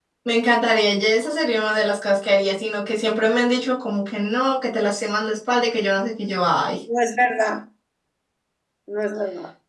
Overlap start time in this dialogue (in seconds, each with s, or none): none